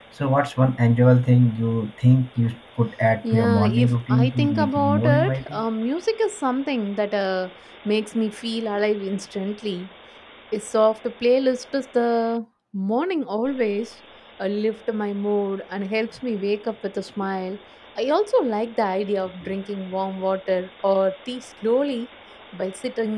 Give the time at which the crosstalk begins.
3.2 s

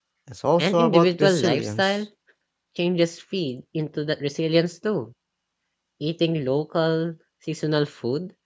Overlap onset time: 0.6 s

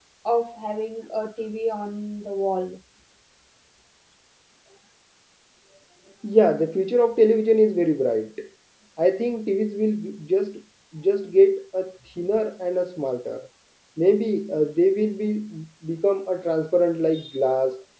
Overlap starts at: none

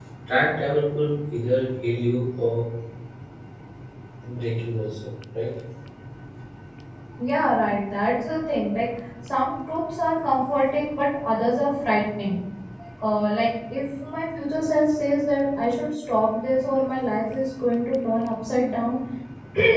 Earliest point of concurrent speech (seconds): none

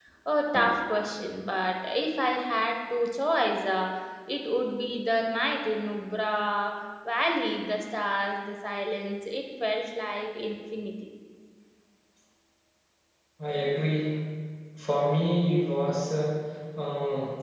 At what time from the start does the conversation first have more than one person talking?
none

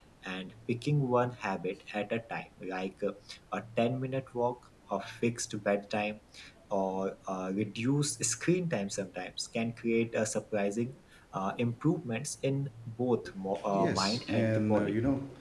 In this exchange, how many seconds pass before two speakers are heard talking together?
13.5 s

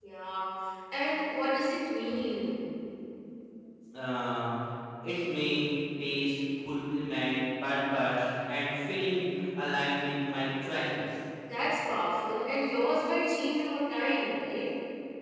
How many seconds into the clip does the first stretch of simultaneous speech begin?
none

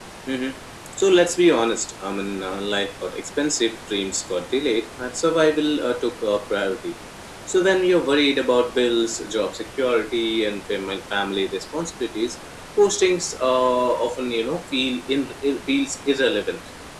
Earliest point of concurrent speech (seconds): none

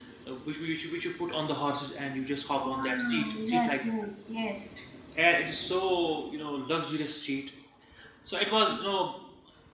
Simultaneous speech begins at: 2.6 s

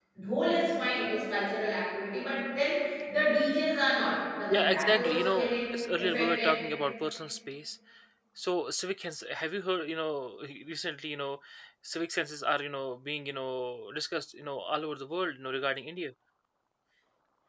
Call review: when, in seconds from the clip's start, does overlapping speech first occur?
4.5 s

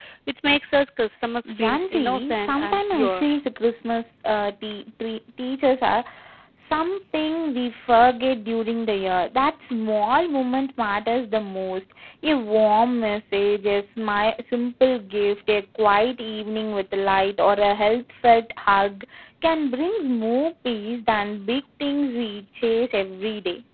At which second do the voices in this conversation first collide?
1.4 s

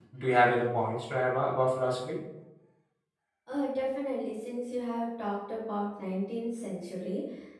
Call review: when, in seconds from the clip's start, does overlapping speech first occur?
none

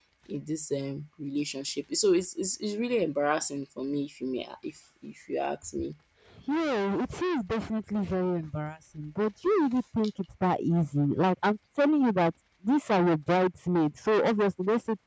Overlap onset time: none

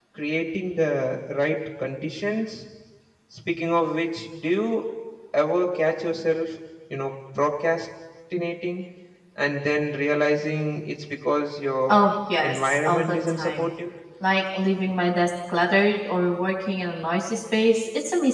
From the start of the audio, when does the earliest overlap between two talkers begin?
12.4 s

